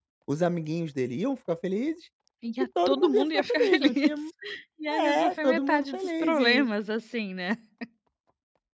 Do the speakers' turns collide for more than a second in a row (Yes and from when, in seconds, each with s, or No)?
Yes, from 2.6 s